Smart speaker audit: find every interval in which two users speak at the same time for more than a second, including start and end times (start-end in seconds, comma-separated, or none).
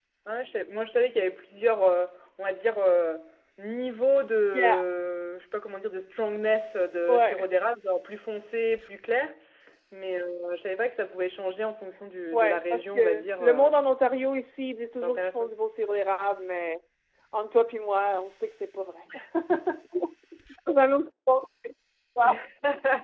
12.3-13.7